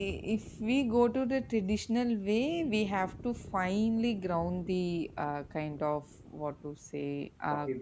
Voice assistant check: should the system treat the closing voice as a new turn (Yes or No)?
No